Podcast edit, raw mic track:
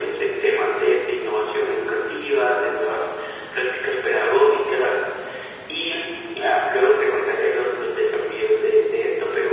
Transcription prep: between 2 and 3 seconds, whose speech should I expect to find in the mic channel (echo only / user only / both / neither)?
echo only